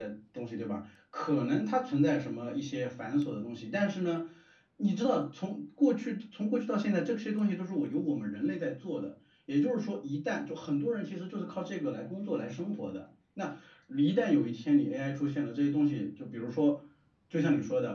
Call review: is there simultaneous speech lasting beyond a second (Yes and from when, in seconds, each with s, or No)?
No